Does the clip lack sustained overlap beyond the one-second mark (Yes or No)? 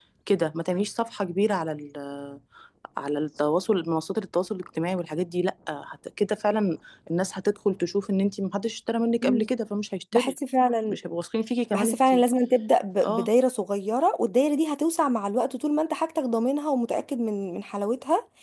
Yes